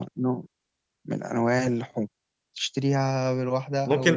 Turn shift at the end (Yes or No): Yes